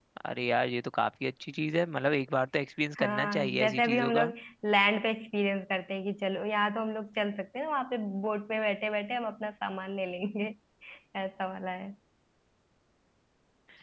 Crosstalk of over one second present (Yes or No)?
Yes